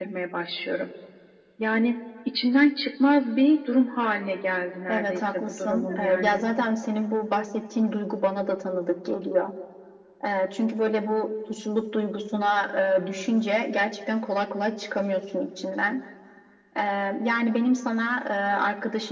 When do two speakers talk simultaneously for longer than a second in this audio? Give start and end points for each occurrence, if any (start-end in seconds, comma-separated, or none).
4.9-6.4